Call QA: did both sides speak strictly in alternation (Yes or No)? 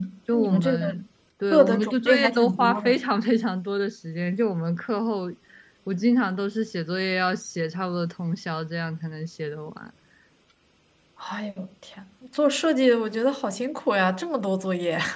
No